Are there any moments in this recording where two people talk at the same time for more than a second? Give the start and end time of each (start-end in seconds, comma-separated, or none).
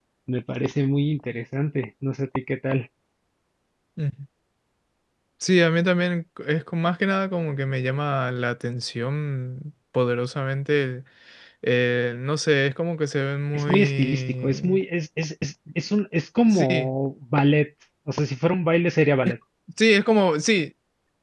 13.5-14.8